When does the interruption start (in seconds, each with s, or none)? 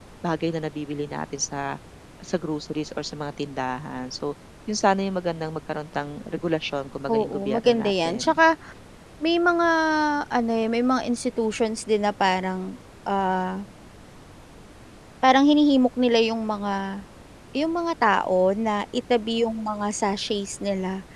7.1 s